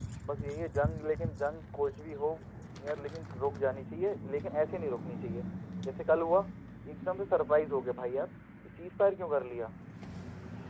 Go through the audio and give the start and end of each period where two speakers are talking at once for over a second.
none

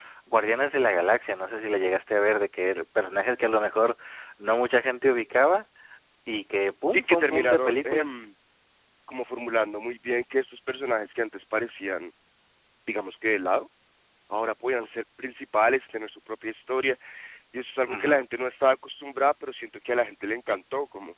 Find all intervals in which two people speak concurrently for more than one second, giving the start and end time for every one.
6.8-8.1

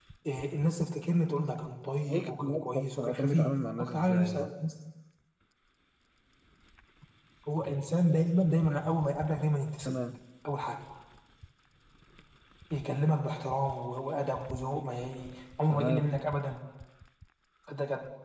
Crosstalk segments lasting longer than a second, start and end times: 2.1-4.5

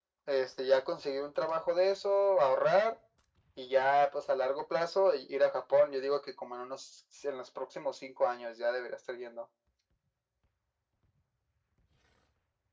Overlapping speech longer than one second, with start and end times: none

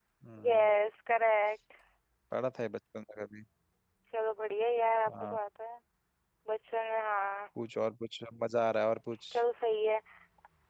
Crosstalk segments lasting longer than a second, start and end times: none

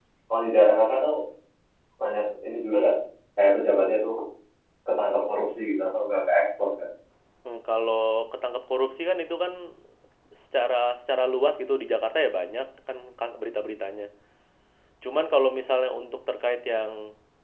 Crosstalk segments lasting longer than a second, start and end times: none

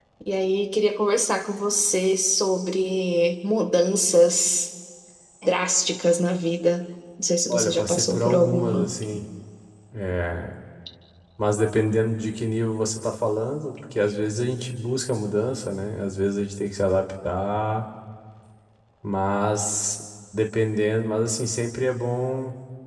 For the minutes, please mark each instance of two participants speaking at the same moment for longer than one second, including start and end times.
7.5-8.9

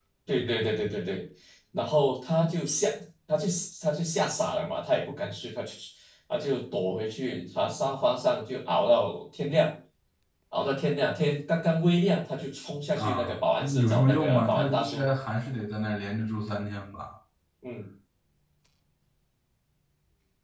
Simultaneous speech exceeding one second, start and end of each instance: 13.0-15.1

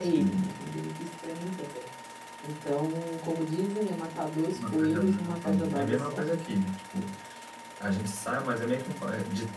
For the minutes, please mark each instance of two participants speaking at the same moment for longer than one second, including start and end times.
4.5-6.2

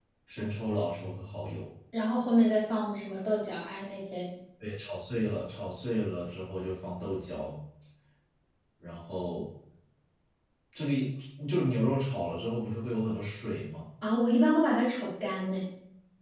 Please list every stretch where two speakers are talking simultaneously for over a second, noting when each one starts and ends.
none

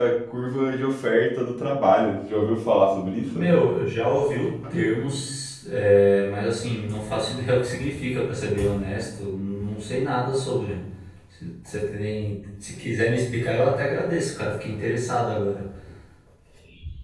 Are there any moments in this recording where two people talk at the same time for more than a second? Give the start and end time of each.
none

